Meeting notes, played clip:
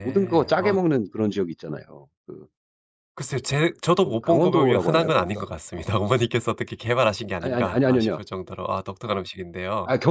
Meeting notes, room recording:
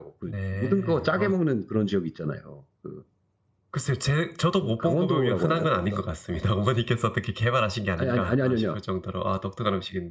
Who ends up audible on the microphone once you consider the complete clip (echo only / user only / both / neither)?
echo only